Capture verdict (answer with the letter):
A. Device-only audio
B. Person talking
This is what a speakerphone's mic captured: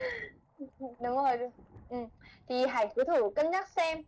A